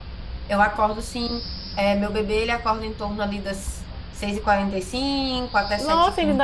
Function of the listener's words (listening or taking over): taking over